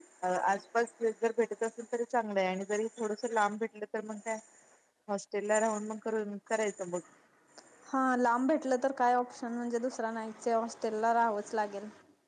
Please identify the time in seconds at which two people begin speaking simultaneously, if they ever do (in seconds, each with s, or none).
none